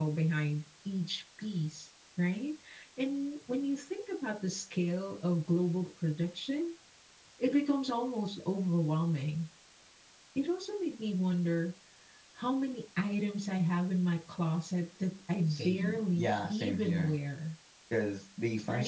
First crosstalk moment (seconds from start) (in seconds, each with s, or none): 15.5 s